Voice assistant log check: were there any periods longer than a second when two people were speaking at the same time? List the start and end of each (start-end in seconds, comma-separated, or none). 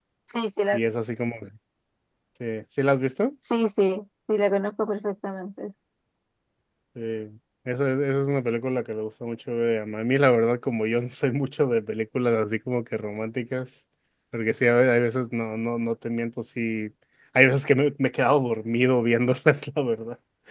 none